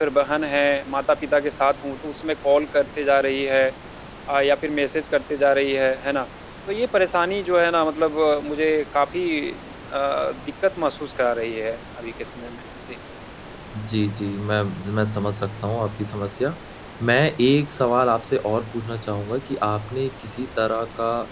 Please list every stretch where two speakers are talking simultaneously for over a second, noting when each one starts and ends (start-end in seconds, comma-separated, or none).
none